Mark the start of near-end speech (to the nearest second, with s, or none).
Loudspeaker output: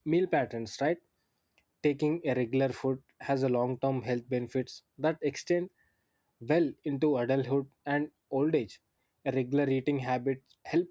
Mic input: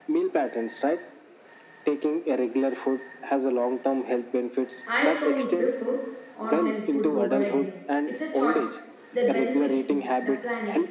5 s